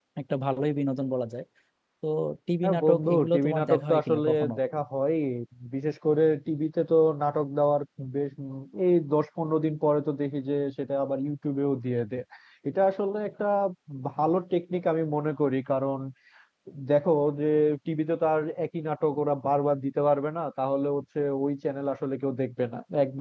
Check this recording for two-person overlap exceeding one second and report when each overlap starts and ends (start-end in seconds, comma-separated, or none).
2.6-4.5